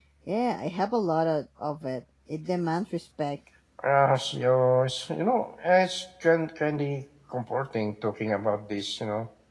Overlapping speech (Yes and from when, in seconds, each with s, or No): No